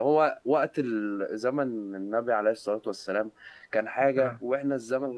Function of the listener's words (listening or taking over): listening